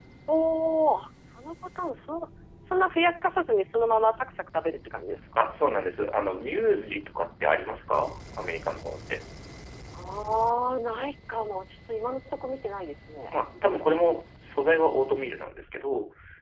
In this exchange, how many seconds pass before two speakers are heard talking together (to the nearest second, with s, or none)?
none